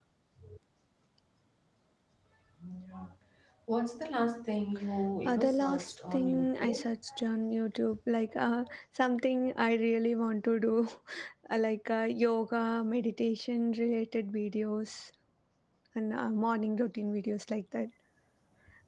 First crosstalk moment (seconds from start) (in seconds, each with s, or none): 5.2 s